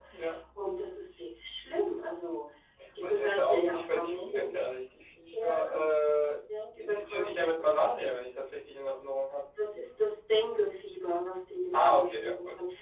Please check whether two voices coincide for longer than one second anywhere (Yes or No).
Yes